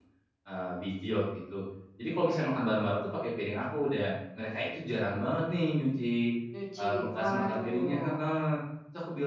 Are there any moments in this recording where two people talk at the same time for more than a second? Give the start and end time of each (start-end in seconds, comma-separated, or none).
6.8-8.3